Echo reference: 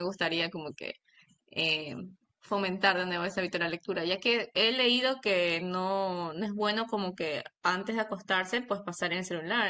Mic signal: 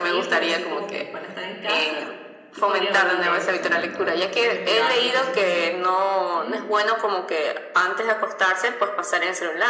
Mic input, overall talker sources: both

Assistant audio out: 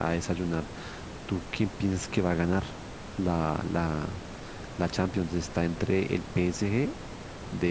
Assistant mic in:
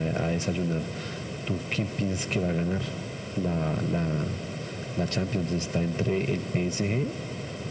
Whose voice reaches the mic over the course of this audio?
echo only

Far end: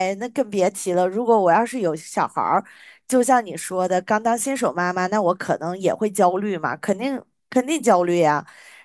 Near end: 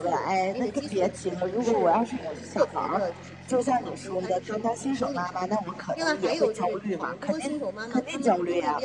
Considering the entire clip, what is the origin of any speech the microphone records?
both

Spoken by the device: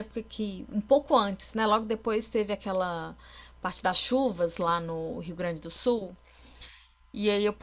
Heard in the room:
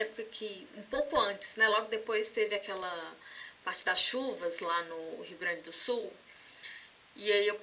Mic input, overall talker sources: echo only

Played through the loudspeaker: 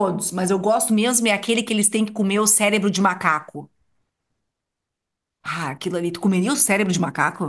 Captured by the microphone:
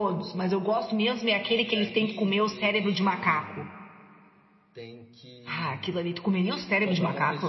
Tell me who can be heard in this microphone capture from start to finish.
both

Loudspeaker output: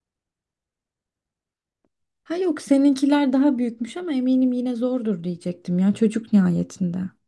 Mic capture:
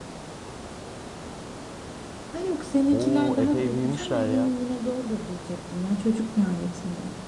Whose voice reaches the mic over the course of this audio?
both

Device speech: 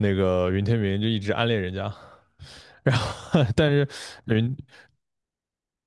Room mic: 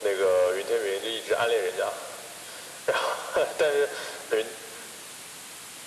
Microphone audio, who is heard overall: echo only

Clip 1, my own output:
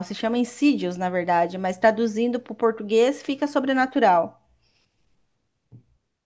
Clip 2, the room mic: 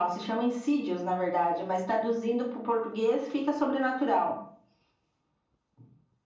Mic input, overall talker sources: echo only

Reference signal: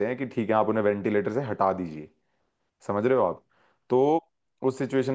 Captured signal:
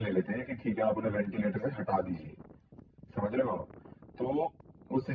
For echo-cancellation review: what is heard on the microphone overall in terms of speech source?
echo only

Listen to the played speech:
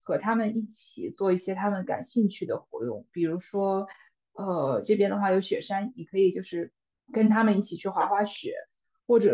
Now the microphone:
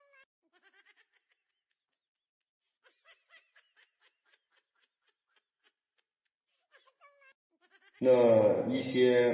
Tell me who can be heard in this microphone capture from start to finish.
user only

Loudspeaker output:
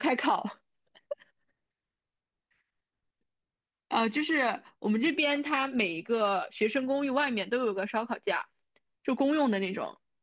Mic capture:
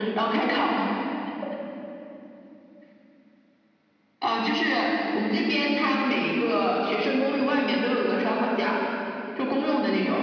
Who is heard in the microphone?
echo only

